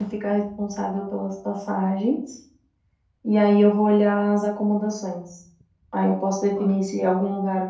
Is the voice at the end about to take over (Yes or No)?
No